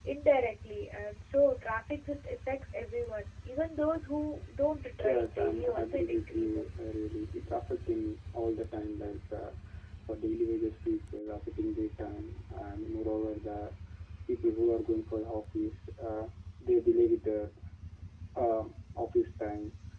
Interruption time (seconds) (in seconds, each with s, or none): 5.0 s